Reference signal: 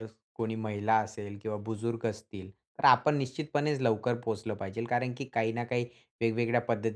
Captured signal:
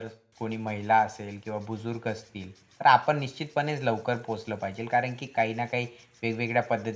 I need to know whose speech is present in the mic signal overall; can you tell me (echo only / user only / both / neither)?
echo only